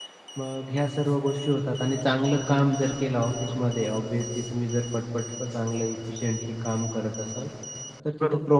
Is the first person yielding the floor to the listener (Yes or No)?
No